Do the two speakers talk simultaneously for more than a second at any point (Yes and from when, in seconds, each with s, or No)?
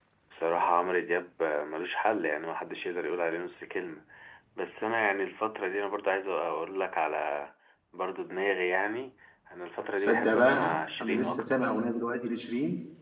Yes, from 10.0 s